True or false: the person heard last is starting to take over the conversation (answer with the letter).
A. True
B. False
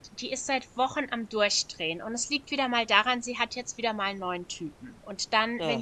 B